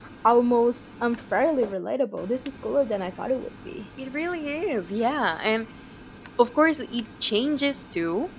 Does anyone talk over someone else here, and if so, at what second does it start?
none

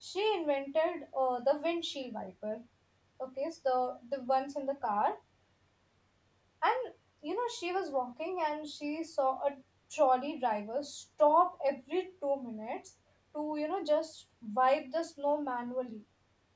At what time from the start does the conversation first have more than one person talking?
none

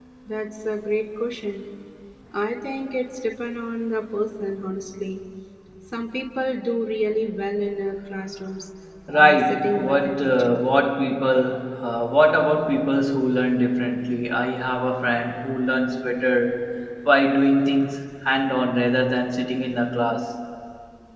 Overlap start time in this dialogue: 9 s

